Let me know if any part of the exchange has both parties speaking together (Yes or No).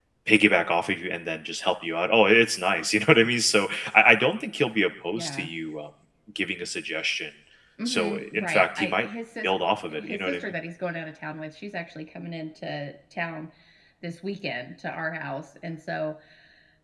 Yes